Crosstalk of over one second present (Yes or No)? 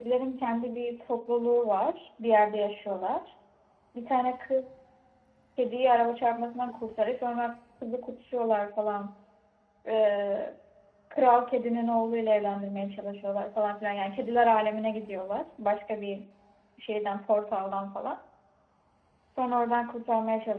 No